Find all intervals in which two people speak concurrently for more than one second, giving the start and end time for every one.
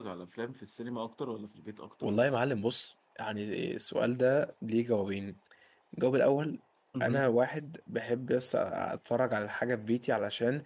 none

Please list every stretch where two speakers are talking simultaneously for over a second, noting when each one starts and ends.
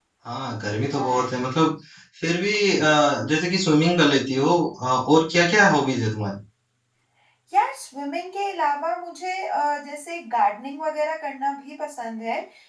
none

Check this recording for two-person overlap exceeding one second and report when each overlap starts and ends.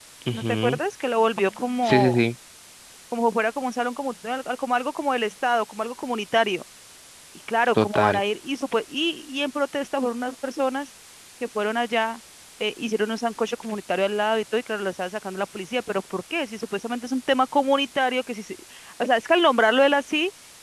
none

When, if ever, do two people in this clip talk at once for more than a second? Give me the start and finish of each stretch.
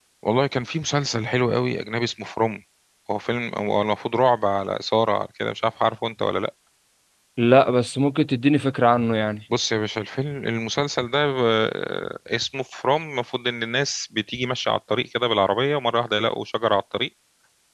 none

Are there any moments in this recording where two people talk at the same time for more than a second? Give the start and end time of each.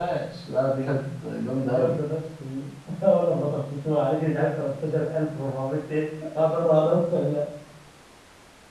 none

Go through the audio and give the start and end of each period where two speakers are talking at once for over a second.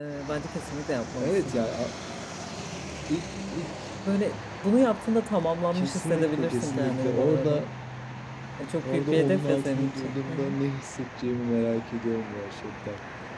5.7-7.6, 8.8-10.5

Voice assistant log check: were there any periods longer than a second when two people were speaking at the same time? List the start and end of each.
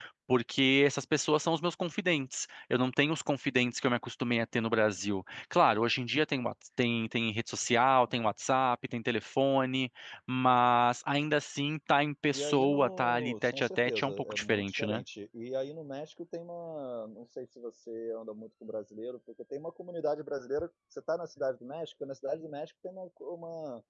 12.3-15.0

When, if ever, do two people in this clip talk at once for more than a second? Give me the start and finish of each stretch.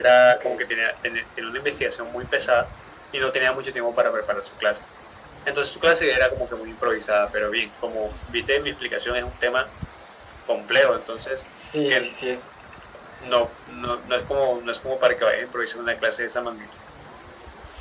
none

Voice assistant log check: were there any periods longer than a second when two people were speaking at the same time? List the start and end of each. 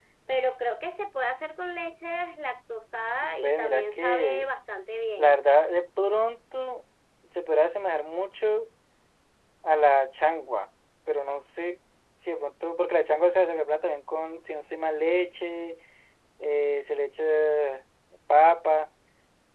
3.2-4.5

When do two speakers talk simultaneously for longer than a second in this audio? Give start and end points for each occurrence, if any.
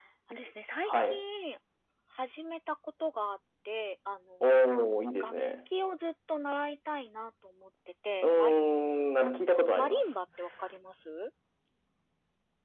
none

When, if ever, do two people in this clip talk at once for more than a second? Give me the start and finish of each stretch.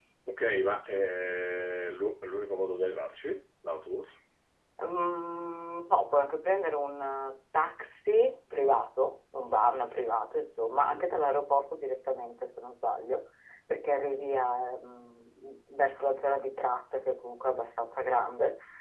none

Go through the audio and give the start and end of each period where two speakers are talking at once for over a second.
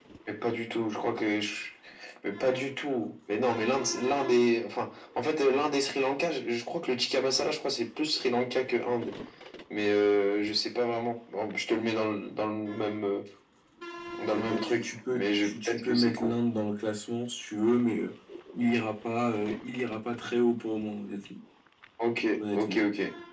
14.2-16.3

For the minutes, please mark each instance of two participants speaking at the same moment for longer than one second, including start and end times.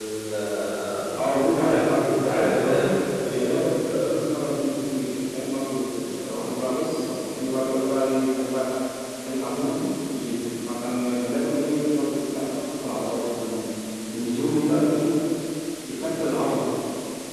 1.1-3.9

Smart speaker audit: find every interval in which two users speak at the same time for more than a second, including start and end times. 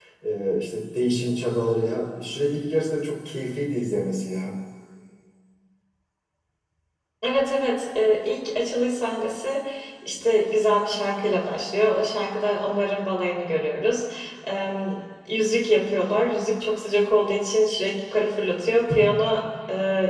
none

